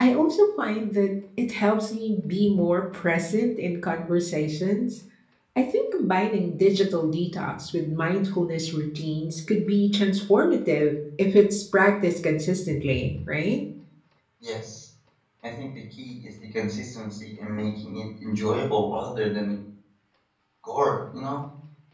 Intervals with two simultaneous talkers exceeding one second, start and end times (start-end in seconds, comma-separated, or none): none